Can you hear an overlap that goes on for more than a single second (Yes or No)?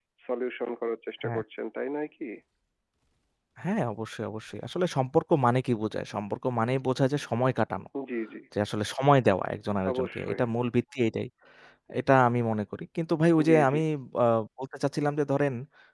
No